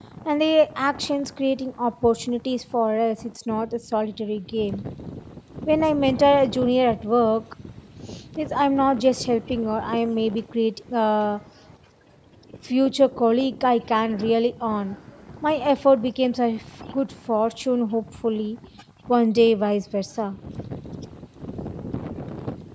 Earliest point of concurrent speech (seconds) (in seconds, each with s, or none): none